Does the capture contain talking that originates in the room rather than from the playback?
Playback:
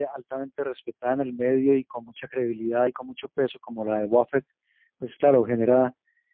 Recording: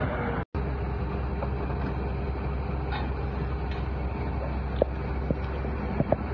No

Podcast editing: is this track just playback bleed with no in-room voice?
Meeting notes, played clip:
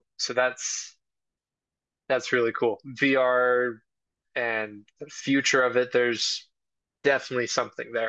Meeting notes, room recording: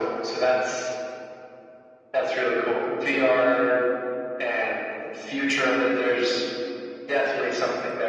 Yes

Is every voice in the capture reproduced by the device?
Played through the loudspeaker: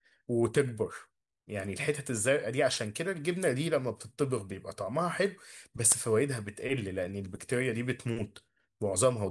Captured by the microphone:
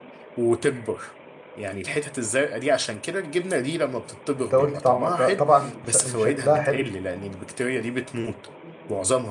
No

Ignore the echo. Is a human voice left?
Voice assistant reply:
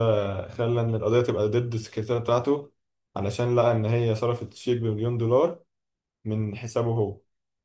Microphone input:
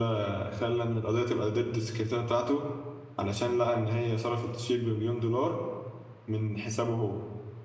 No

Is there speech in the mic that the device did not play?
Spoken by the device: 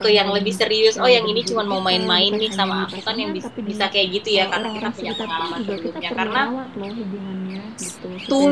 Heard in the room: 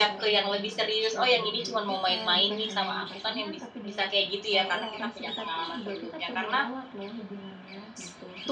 No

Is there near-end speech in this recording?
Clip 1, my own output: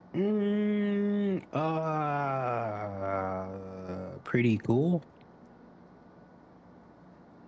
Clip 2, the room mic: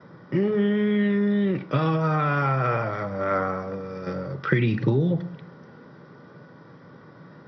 No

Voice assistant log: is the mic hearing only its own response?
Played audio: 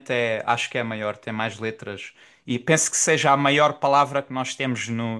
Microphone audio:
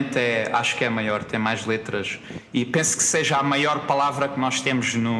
Yes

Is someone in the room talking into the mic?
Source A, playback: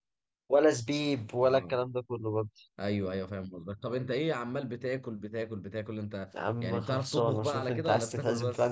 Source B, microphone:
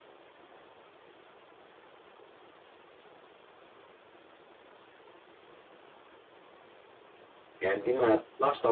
Yes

